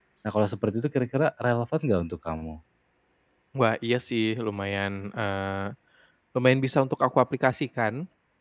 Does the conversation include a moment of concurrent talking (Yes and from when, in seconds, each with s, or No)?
No